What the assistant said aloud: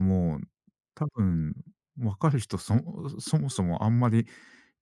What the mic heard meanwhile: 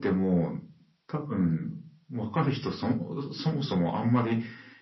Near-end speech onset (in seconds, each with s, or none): none